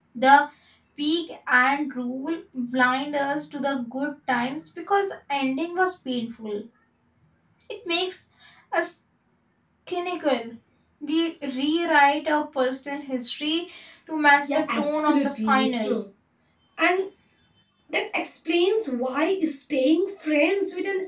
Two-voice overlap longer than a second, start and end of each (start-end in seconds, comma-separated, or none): 14.5-16.0